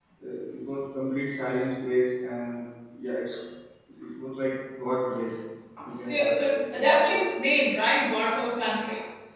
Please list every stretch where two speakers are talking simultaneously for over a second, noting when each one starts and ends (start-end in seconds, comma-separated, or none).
6.0-7.2